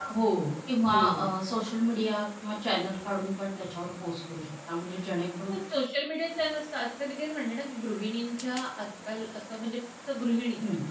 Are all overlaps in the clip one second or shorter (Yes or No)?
Yes